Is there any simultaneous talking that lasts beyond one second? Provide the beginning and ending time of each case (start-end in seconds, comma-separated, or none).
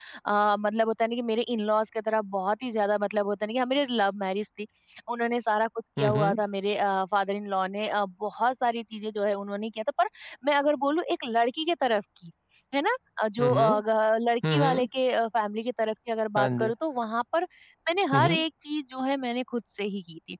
none